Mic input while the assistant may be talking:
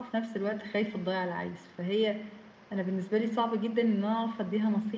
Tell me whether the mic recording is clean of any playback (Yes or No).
Yes